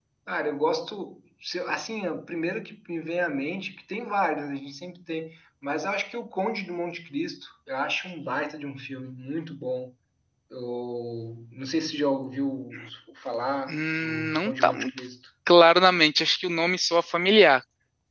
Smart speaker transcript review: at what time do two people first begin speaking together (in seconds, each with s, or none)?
13.7 s